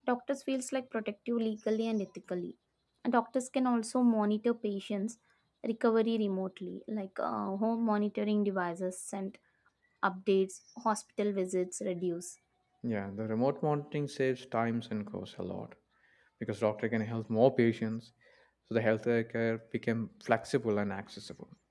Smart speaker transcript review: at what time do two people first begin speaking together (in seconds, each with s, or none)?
none